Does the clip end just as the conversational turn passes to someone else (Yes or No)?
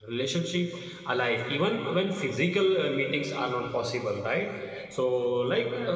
No